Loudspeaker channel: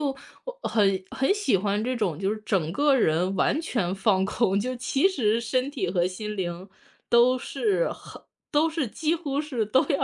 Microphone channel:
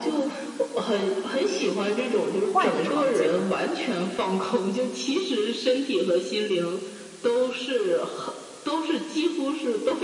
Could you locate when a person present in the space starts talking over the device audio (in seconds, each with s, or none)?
2.4 s